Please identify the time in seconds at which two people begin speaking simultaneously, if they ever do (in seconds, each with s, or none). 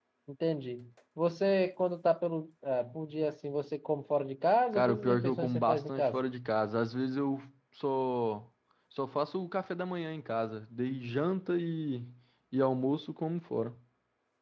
4.7 s